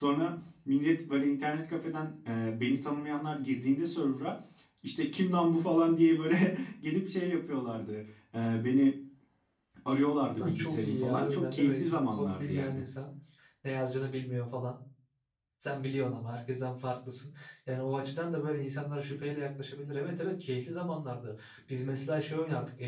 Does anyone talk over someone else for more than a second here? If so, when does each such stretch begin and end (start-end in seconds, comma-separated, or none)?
10.5-12.8